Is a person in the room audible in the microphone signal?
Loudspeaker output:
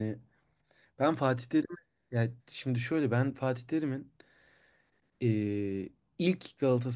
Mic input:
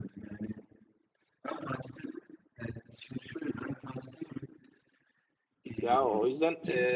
Yes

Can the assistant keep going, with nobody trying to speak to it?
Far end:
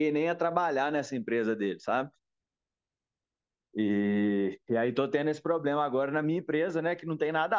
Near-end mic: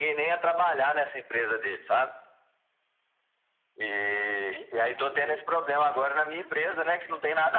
No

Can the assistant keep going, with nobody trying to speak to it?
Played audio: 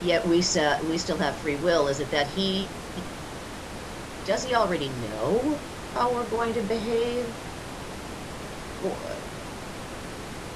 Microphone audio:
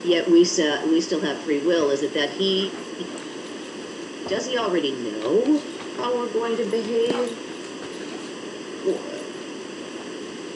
Yes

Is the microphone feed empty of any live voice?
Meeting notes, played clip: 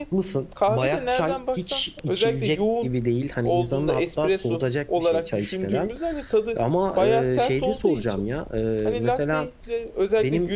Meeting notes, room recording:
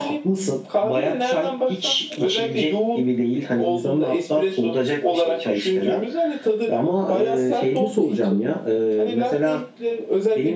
Yes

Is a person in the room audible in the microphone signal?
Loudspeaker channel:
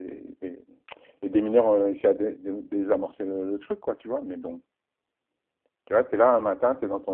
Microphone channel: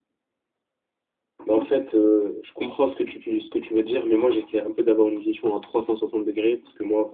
Yes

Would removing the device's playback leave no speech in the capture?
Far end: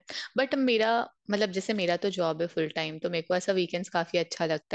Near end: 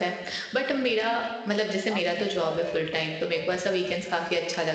No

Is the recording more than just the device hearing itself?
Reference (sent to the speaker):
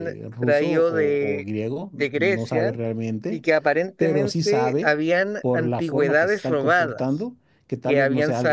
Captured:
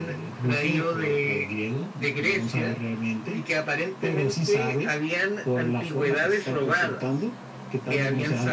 No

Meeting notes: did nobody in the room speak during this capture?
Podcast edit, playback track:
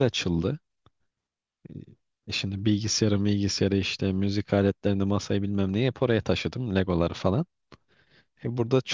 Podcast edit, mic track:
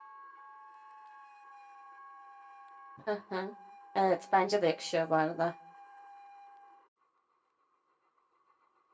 No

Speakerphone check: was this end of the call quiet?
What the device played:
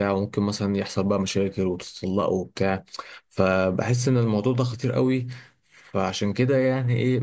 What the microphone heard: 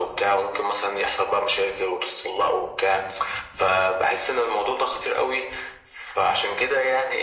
Yes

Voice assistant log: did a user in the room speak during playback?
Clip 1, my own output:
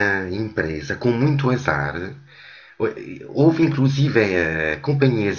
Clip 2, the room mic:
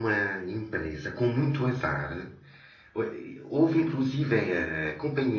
No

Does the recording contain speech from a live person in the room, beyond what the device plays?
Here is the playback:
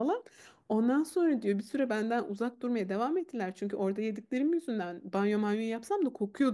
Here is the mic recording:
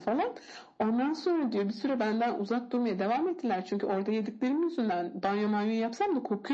No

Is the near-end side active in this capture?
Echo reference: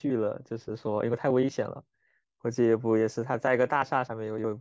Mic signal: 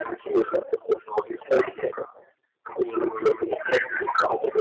No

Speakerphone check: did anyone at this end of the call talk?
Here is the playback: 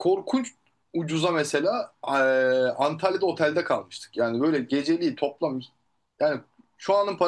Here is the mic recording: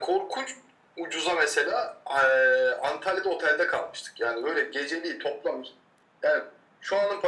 No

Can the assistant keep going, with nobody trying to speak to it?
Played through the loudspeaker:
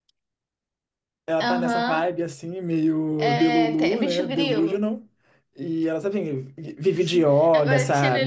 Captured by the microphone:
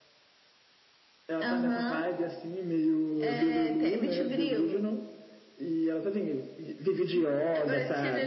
Yes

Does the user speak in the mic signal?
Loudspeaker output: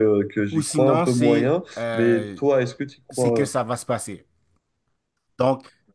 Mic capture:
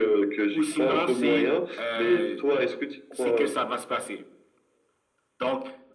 No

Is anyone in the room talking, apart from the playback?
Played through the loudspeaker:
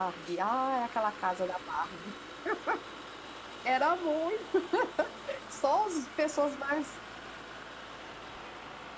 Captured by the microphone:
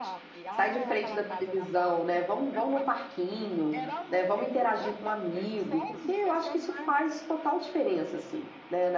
Yes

